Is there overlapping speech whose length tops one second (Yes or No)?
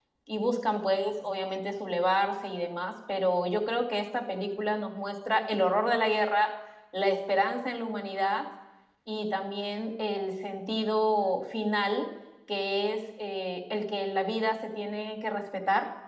No